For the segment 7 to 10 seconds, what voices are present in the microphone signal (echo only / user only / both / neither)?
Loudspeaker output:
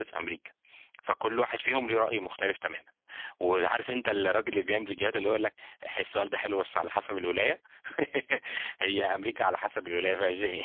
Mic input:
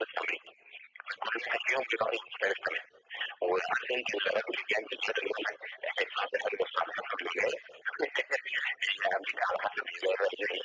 echo only